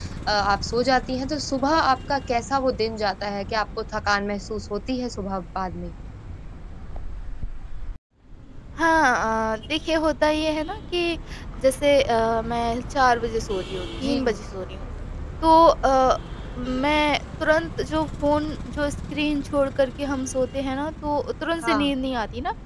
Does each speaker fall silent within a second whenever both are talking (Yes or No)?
Yes